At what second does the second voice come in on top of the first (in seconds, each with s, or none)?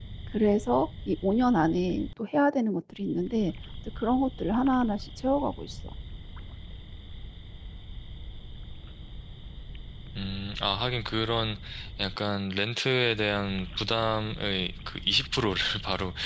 none